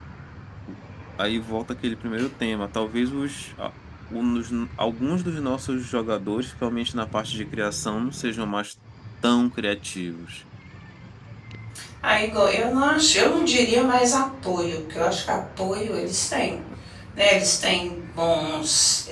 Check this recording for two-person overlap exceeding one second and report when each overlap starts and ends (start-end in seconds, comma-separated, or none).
none